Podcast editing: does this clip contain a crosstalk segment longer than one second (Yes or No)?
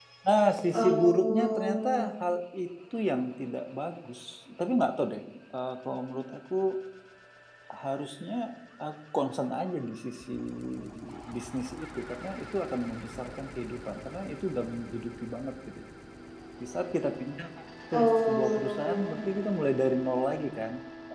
Yes